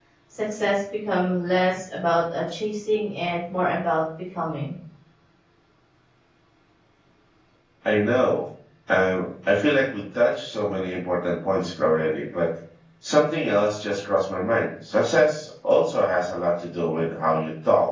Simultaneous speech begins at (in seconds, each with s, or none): none